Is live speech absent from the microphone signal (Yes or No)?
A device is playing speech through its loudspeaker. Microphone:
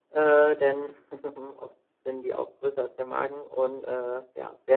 Yes